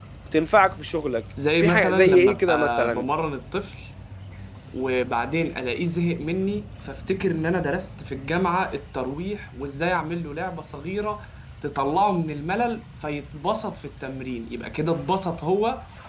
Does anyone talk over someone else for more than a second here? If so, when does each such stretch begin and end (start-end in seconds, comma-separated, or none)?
1.6-3.0